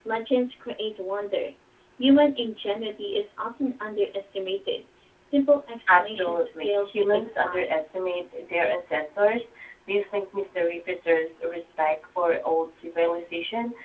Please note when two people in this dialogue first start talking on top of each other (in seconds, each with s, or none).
5.9 s